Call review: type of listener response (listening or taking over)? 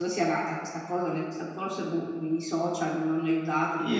taking over